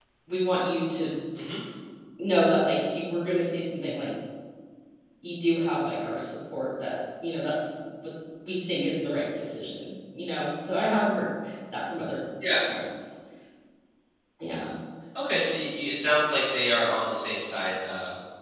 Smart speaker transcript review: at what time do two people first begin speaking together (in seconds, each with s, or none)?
none